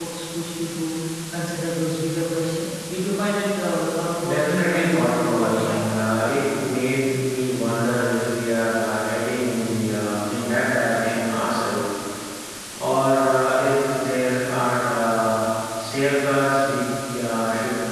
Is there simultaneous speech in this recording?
Yes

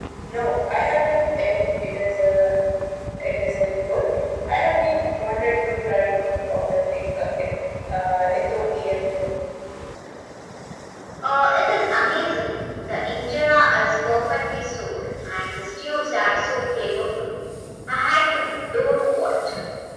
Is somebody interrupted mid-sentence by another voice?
No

